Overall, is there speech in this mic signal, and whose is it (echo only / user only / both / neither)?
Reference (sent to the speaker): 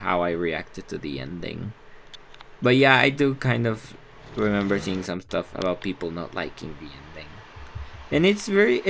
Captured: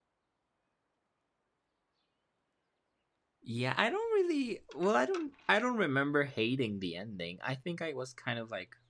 user only